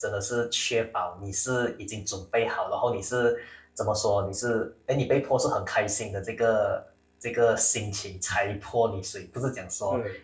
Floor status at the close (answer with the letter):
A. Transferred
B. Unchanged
B